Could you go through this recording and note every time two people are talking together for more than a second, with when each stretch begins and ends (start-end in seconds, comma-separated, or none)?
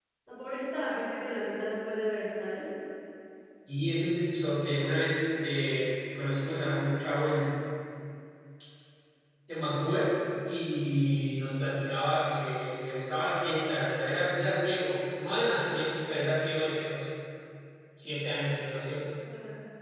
none